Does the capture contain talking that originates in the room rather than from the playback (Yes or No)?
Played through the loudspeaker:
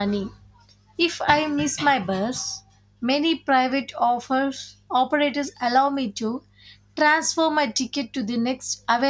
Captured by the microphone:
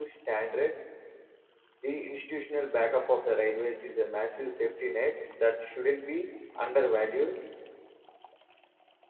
Yes